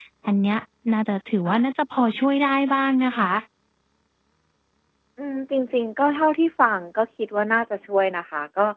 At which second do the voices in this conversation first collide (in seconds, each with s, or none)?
none